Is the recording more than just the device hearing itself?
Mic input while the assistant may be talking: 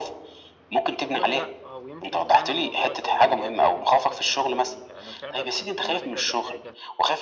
Yes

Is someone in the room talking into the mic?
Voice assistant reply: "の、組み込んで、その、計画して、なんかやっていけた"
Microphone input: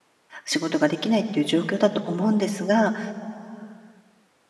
Yes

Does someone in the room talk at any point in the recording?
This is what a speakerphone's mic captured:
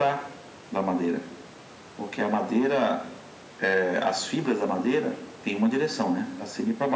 No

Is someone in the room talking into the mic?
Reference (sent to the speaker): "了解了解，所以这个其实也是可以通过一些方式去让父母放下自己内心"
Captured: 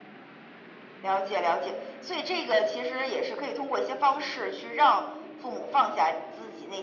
No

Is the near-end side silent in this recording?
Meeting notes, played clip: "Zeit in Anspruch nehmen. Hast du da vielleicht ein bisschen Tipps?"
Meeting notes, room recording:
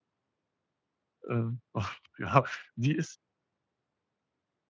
No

